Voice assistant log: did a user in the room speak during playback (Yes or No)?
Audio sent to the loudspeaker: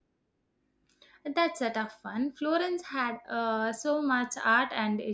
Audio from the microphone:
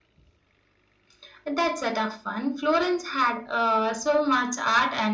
No